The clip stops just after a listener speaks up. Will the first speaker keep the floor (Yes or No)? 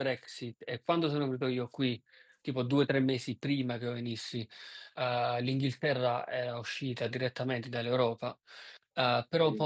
Yes